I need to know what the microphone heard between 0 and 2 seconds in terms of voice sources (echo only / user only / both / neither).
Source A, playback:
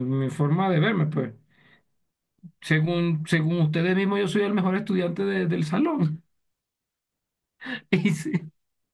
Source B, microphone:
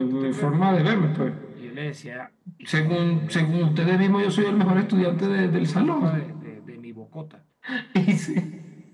both